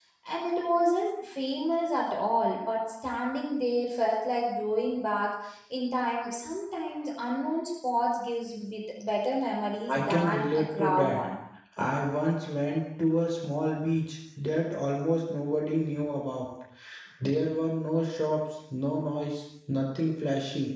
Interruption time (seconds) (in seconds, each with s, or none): 9.9 s